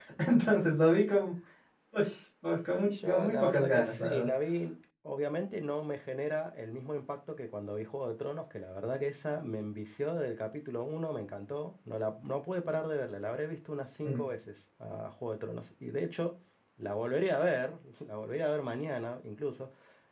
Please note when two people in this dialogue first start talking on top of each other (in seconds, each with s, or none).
2.9 s